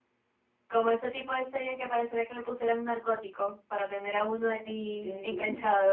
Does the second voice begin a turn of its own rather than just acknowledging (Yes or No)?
Yes